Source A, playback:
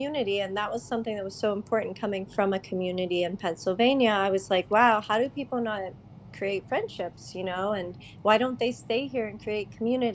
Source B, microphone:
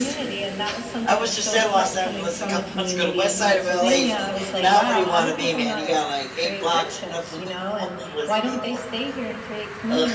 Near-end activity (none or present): present